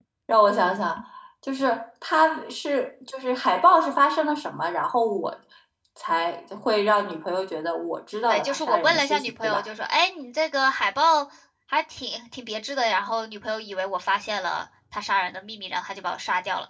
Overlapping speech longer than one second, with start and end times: 8.2-9.7

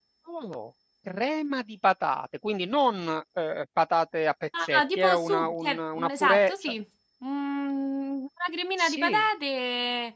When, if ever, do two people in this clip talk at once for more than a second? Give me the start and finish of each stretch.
4.6-6.7

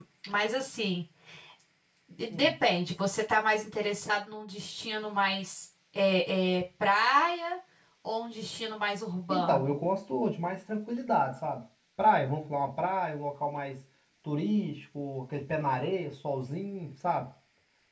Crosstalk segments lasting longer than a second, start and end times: none

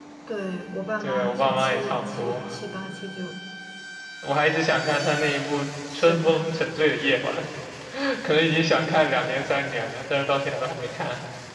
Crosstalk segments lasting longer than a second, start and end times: 1.0-2.4

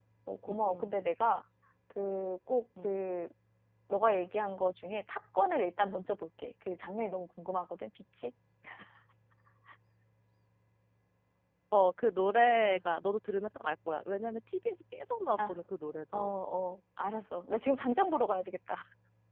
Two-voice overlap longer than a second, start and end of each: none

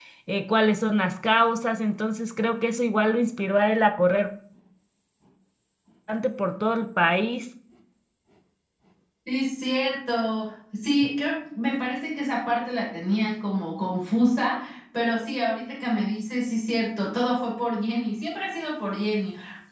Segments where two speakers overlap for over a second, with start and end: none

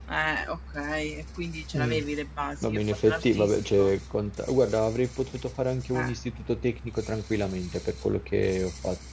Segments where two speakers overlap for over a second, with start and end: 2.6-3.9

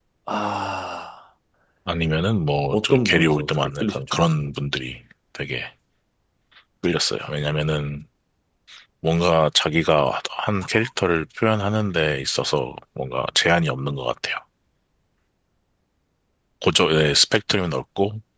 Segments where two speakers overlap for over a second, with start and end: 2.7-4.2

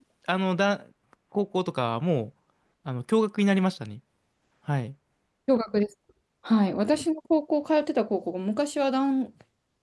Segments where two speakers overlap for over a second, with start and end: none

